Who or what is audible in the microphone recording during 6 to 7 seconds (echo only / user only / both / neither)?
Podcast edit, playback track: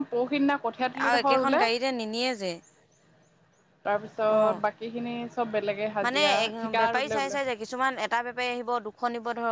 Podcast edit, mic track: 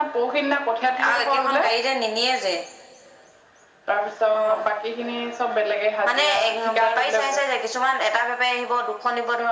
echo only